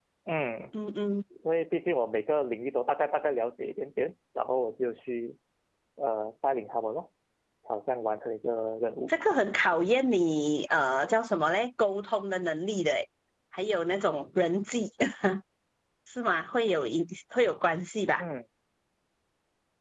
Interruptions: none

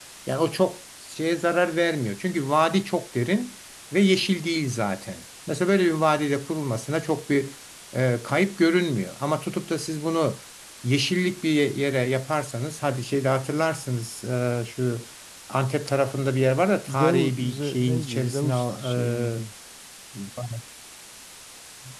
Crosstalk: present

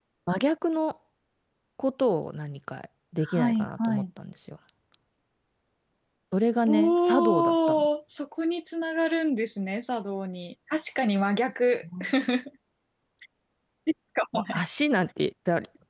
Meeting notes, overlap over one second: present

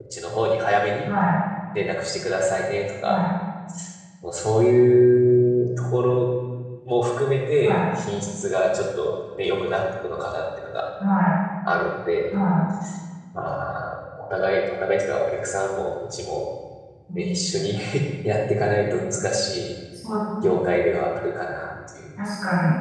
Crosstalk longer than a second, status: none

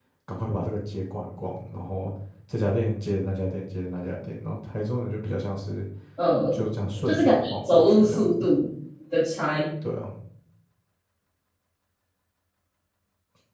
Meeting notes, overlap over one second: present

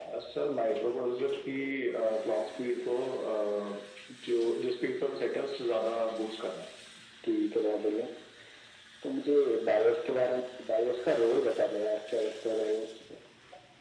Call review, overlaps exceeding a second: none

